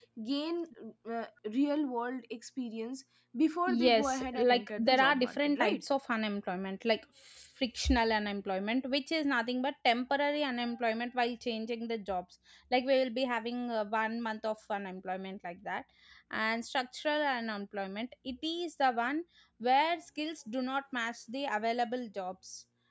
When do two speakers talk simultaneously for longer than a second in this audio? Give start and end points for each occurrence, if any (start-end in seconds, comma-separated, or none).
3.7-5.8